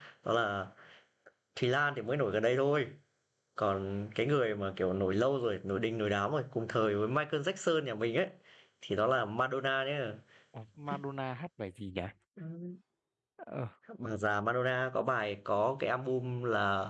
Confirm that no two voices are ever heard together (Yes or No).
Yes